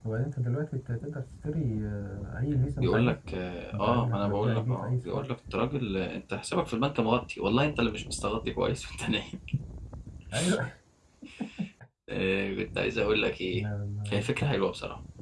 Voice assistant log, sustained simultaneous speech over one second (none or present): present